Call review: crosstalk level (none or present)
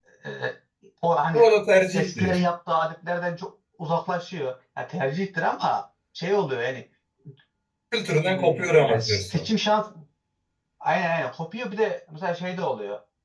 present